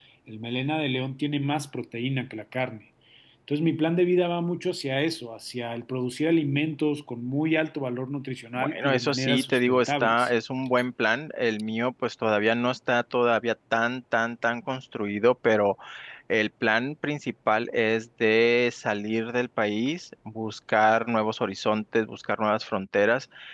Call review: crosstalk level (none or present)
present